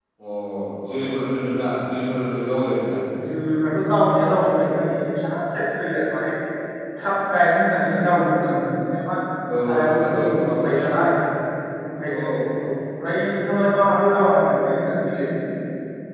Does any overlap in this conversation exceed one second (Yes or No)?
Yes